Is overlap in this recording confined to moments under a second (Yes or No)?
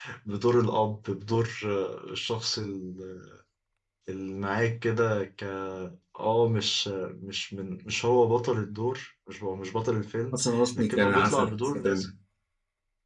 No